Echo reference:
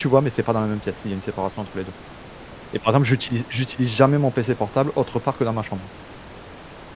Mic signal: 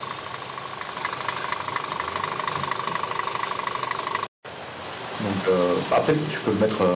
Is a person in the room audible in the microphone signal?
Yes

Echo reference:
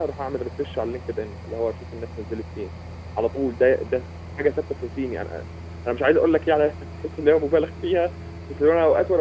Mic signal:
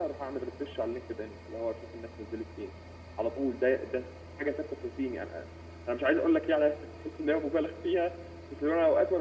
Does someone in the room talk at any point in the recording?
No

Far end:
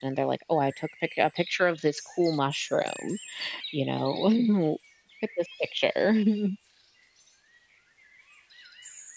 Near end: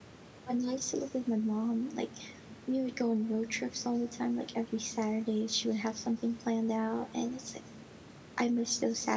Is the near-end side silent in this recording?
No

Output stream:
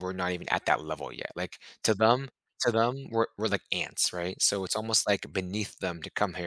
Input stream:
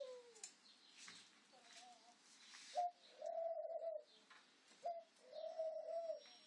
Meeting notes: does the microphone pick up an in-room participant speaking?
No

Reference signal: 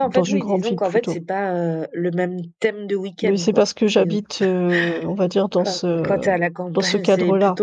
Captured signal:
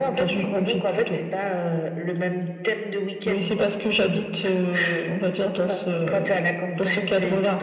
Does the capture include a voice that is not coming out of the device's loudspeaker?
No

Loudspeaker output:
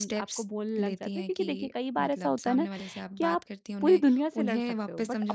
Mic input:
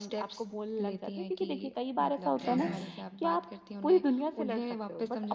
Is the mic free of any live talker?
No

